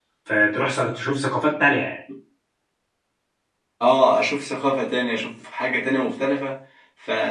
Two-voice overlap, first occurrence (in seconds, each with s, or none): none